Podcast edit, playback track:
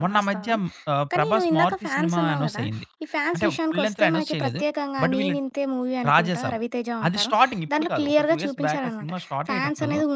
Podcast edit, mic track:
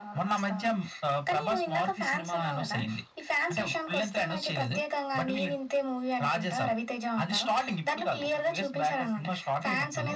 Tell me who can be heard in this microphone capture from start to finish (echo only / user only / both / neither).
echo only